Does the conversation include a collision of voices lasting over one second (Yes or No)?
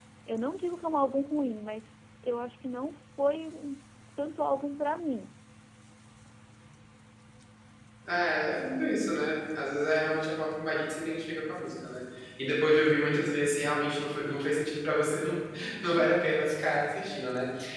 No